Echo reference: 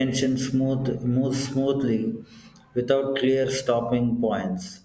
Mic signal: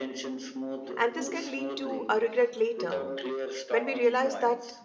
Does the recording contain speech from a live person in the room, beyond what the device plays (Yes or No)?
Yes